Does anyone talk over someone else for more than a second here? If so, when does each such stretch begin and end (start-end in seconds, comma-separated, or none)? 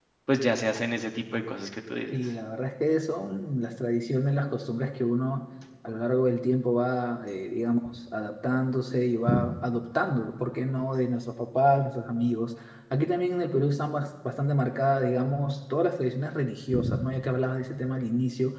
none